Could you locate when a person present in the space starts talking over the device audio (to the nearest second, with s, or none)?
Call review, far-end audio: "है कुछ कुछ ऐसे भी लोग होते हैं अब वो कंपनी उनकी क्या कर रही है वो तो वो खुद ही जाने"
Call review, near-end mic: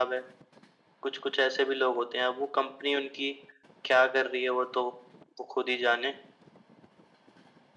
none